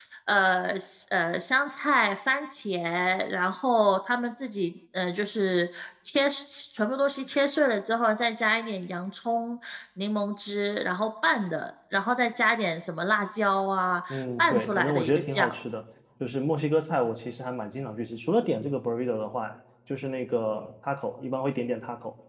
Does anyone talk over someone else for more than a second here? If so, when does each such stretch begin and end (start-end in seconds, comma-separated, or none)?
14.1-15.6